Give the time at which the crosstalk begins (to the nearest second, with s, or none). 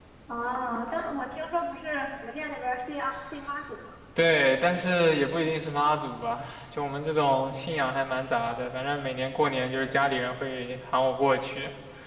none